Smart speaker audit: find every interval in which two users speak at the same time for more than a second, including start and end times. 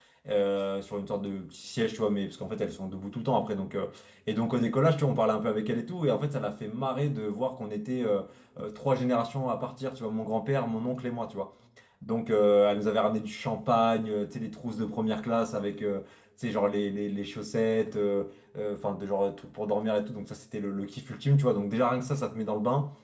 none

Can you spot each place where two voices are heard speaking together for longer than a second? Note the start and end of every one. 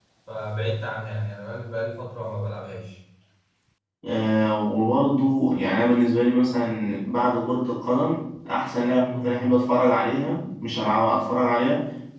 none

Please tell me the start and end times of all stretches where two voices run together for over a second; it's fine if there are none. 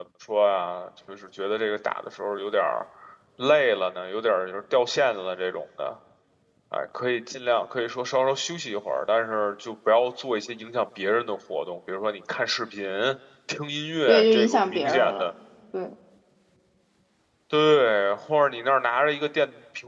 14.1-15.3

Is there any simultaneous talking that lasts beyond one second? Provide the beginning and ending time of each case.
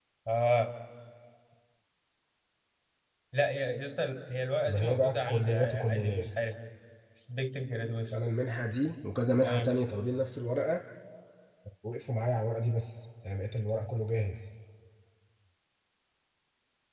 4.6-6.5

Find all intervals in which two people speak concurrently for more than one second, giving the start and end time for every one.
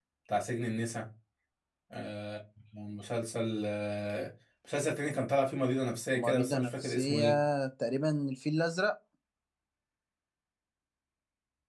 6.1-7.4

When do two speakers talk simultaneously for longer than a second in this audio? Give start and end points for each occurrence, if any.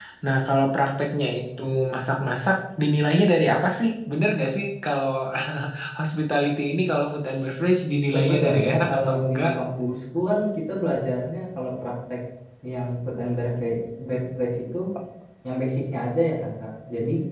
8.1-9.4

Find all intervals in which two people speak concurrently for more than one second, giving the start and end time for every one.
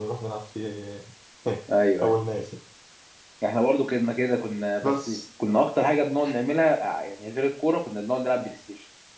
none

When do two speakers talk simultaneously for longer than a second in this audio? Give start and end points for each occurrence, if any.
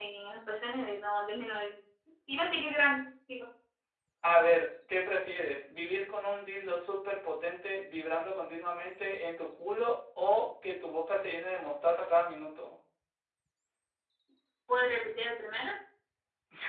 none

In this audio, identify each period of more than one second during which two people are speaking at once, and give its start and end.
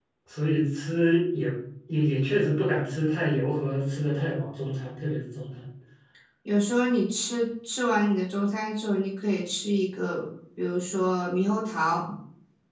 none

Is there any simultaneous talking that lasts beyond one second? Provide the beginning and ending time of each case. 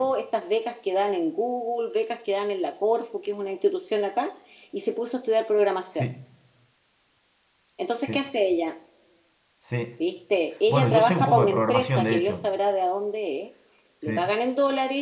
10.7-12.5

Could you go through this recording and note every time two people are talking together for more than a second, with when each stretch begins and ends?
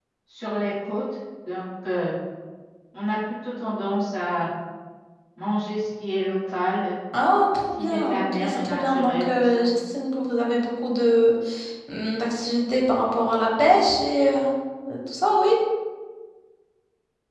7.8-9.6

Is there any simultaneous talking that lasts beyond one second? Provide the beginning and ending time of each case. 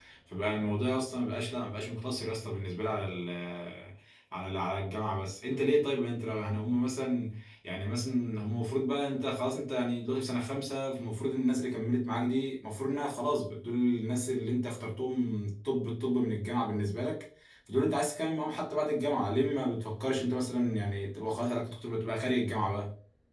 none

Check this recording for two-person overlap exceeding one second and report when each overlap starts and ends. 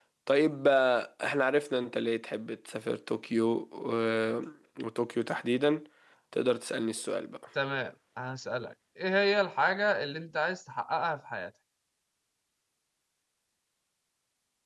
none

